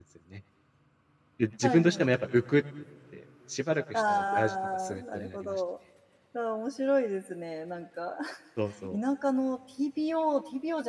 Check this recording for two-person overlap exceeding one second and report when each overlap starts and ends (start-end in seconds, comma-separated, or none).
3.9-5.6